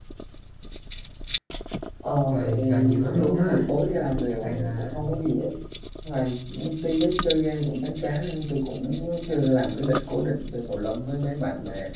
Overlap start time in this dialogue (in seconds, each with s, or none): 2.3 s